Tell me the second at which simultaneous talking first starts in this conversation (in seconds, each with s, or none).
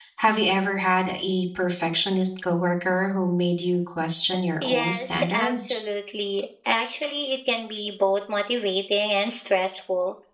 4.6 s